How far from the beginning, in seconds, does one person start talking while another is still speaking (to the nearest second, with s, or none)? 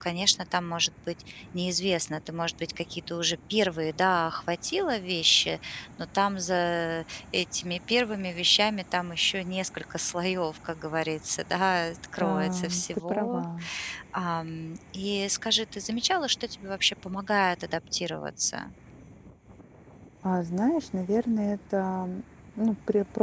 12 s